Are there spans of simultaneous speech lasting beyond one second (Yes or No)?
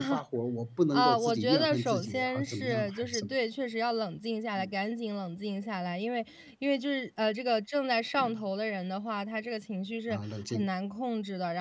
Yes